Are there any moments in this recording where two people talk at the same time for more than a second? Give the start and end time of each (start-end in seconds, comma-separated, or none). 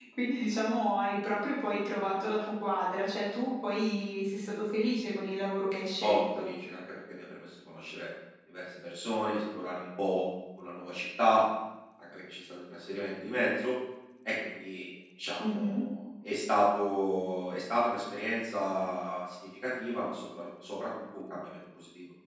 none